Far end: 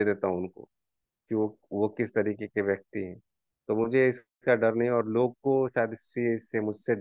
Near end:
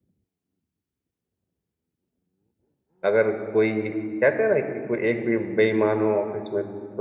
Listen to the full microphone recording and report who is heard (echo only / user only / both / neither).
user only